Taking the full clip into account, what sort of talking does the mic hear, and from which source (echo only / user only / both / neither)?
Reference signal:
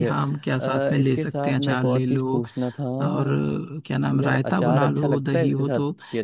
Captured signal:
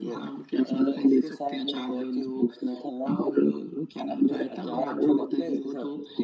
echo only